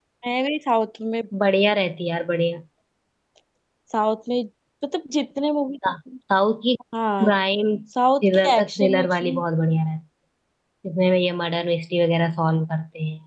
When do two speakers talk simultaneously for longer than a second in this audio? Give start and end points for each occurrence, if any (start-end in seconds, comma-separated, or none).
8.2-9.4